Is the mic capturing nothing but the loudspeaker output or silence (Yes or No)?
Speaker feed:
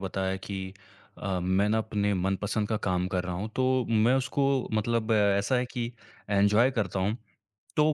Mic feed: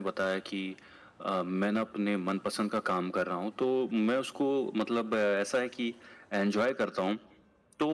Yes